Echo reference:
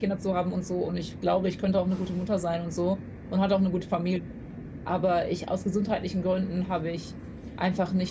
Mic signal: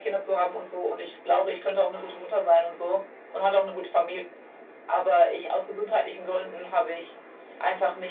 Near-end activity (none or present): none